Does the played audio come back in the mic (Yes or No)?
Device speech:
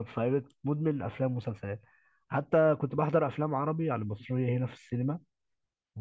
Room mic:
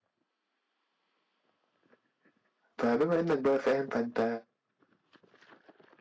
No